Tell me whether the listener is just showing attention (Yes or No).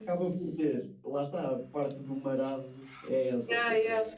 No